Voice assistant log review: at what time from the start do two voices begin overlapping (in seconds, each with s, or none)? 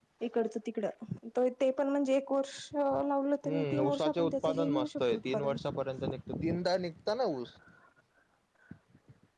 3.5 s